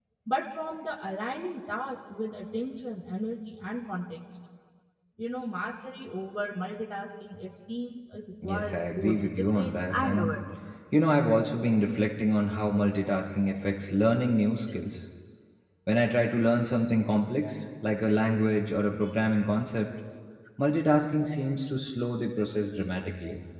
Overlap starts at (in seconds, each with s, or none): 8.4 s